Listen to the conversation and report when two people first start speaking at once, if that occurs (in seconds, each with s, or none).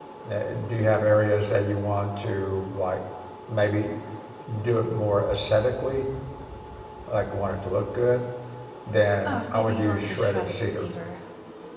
9.2 s